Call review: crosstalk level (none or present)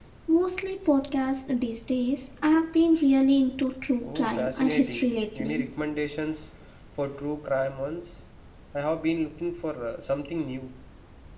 present